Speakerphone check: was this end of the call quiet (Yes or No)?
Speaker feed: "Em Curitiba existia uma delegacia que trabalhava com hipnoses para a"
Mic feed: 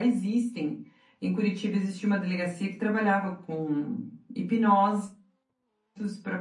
Yes